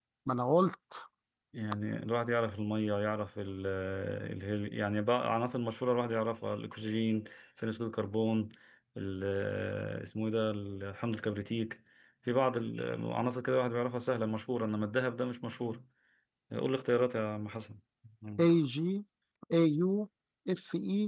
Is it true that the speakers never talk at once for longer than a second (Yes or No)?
Yes